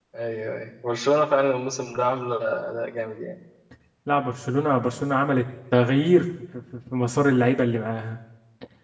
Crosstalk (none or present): none